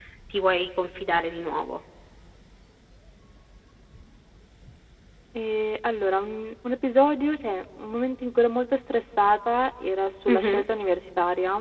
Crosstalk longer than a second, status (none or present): none